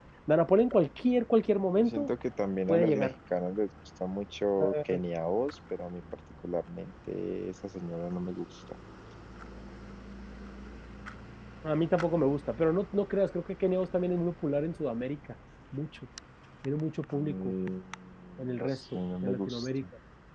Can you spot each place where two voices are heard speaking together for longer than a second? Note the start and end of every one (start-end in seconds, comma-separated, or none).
18.6-19.8